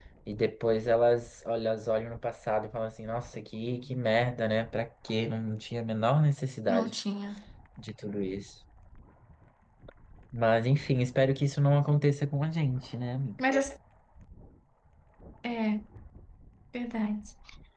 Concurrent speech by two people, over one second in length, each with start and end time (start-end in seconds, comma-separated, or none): none